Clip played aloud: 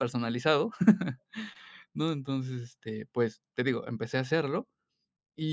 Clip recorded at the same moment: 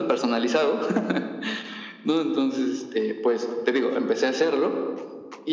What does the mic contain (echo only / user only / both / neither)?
echo only